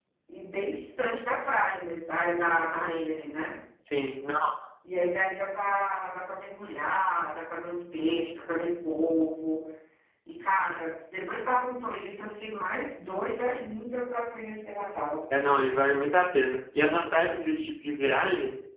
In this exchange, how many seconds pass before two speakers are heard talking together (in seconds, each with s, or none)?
none